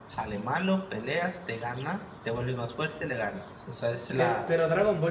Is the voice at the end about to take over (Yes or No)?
Yes